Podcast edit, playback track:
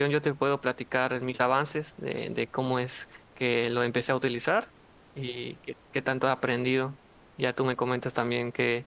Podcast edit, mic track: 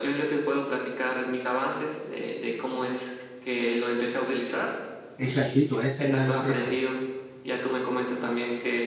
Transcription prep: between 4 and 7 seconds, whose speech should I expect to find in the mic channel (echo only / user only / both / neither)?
both